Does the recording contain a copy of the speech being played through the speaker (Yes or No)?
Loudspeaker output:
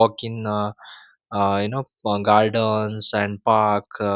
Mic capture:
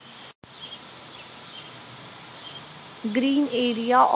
No